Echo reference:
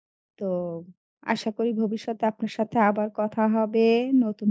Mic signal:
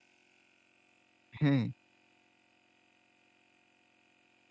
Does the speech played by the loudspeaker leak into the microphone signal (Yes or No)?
No